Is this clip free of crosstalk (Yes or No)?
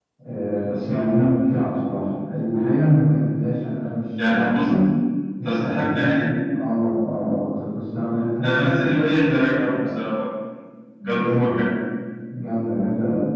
No